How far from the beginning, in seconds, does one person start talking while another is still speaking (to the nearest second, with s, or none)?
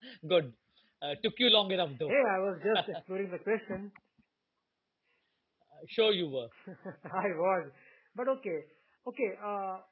none